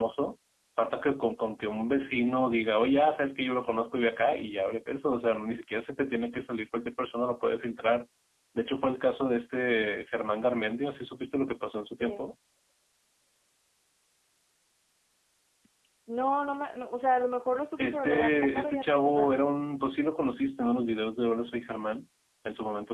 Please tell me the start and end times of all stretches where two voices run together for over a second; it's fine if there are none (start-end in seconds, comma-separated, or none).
17.8-19.4